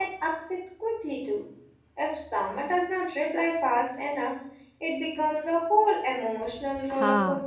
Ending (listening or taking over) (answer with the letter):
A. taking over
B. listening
A